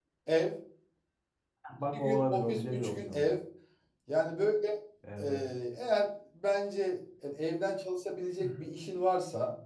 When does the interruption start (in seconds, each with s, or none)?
1.9 s